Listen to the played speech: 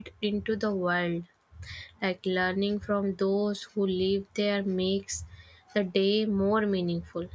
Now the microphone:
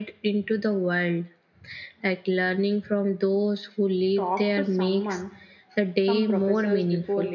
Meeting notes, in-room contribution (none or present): present